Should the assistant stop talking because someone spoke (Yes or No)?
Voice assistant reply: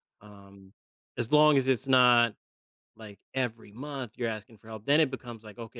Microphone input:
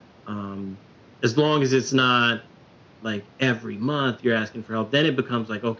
No